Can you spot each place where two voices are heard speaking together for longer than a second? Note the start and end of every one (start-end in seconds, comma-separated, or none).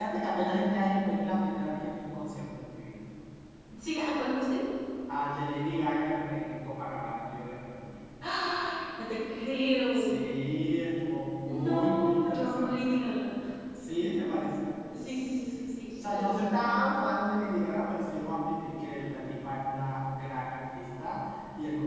11.5-13.0